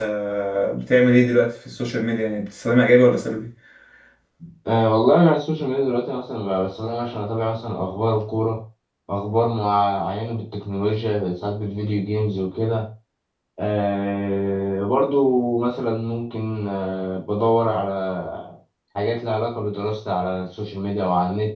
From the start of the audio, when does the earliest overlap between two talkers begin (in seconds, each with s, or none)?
none